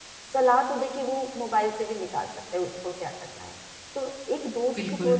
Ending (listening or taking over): listening